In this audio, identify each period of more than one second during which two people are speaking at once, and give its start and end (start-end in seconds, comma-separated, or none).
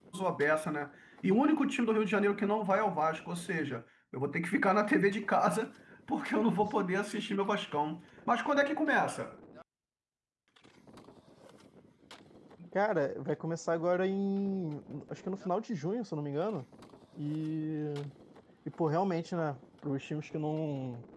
none